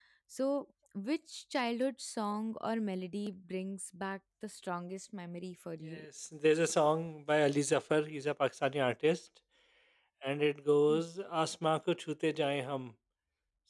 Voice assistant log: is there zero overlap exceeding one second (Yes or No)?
Yes